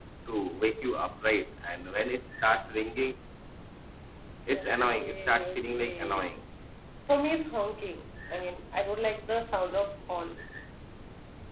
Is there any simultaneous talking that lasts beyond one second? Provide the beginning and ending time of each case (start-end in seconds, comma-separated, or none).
4.5-6.2